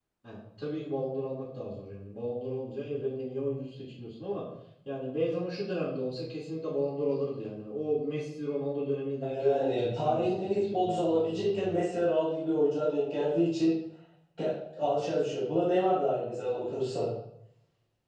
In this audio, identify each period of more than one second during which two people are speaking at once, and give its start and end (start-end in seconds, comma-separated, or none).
9.2-11.8